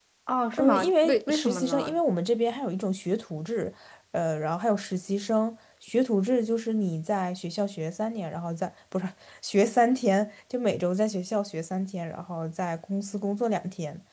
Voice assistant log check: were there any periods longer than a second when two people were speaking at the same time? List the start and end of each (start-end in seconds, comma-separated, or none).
0.5-2.0